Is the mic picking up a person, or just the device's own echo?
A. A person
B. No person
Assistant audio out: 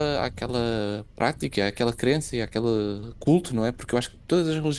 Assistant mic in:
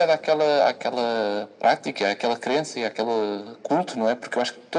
B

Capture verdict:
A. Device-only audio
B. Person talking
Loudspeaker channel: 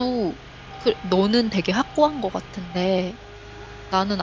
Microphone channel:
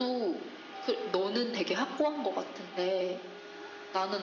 A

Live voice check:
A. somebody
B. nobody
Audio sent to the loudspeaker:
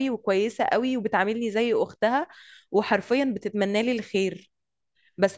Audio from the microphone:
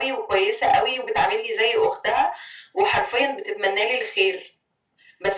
B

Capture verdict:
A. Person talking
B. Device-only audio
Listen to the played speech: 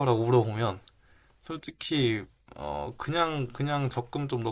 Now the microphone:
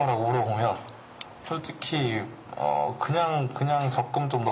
B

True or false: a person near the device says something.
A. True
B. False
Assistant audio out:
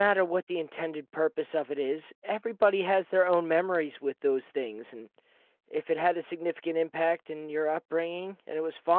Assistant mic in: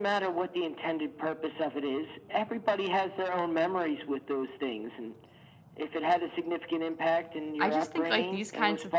A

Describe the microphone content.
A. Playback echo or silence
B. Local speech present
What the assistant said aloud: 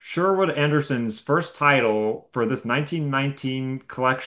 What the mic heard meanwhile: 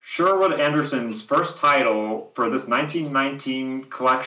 A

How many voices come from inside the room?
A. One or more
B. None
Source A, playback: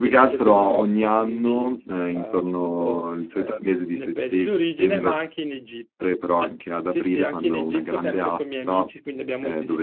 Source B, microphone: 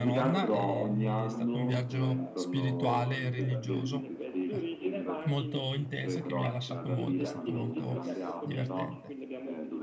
A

